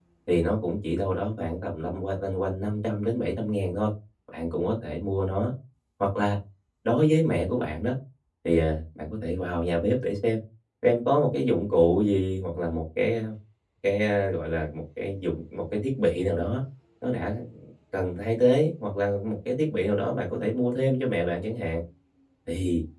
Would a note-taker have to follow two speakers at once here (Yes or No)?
No